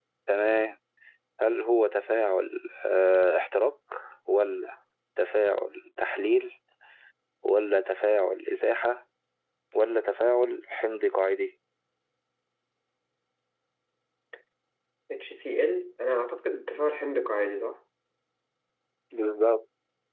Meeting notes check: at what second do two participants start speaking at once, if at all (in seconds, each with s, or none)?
none